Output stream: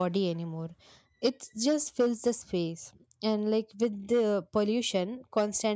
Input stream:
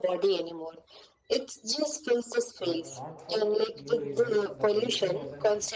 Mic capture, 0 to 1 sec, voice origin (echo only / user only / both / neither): echo only